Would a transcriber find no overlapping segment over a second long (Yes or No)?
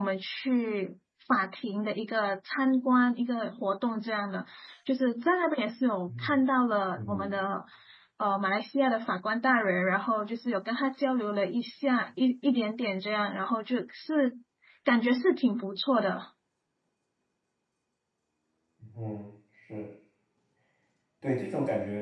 Yes